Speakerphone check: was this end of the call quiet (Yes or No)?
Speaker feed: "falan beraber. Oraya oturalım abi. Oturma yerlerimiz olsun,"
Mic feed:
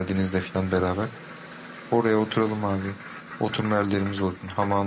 Yes